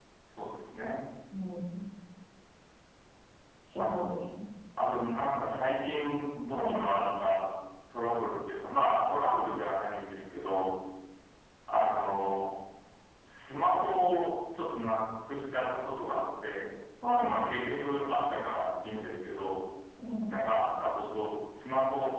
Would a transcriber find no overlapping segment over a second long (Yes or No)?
Yes